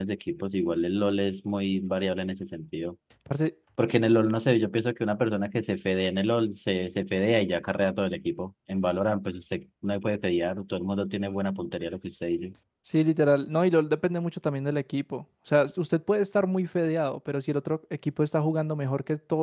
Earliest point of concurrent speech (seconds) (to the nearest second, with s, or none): none